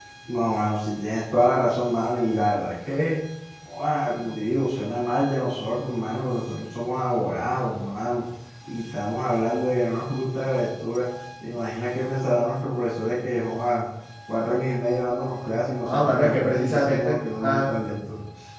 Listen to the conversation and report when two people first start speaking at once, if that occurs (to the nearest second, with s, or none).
16 s